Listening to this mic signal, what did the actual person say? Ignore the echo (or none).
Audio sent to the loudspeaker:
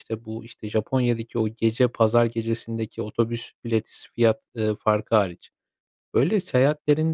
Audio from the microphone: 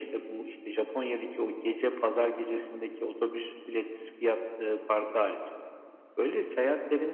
none